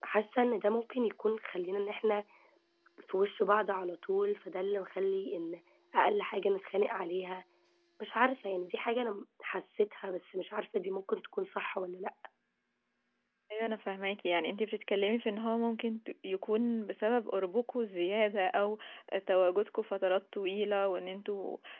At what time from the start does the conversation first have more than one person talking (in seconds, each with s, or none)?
none